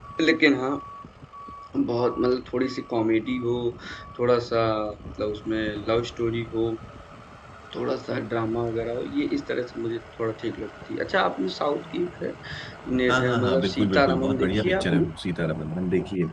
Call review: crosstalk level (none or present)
present